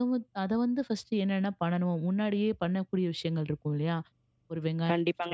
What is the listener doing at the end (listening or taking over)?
taking over